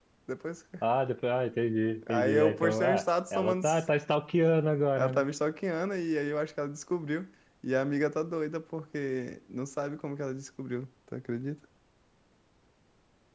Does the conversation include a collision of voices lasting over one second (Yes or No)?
Yes